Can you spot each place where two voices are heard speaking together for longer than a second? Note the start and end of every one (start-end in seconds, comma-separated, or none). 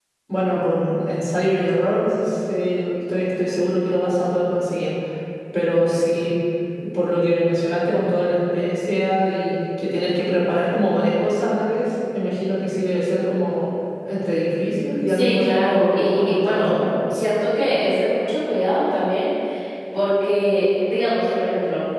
15.1-16.8